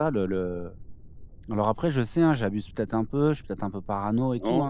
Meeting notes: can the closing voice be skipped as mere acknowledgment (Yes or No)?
No